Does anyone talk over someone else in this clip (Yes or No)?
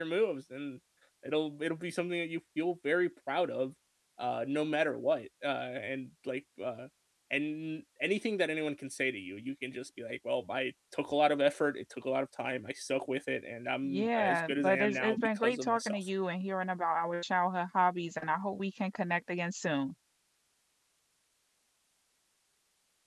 Yes